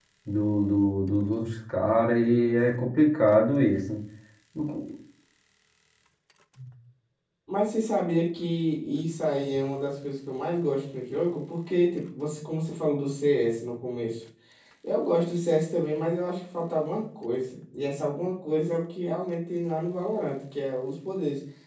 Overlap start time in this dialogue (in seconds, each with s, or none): none